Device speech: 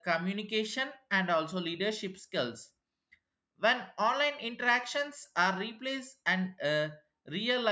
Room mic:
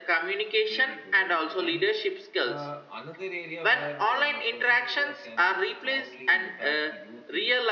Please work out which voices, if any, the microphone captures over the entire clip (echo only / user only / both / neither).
both